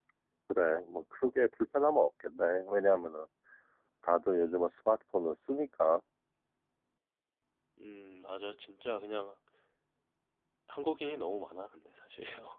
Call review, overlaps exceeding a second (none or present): none